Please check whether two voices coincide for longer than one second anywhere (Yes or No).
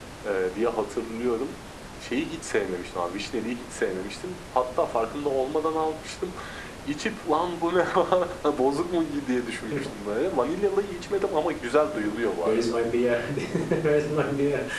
No